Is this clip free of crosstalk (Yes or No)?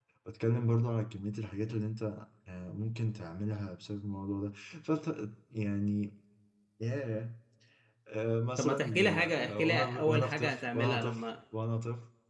No